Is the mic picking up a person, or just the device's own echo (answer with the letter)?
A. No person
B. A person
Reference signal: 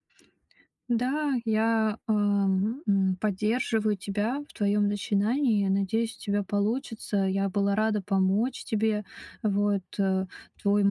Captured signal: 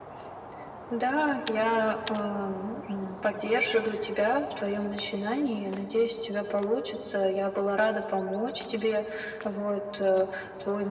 A